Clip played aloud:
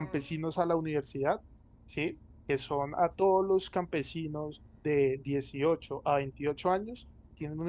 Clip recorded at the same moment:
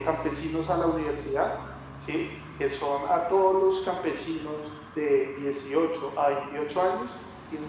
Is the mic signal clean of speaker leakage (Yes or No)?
No